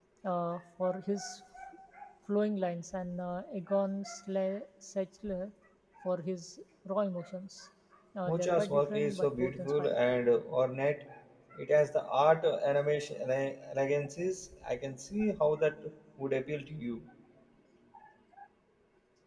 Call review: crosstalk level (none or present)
present